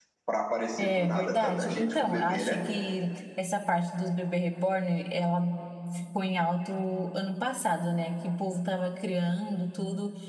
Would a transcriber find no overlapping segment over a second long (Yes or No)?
No